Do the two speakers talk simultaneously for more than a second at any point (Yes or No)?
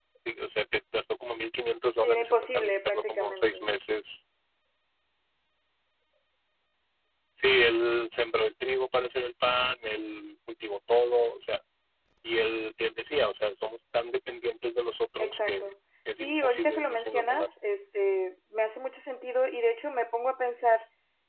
Yes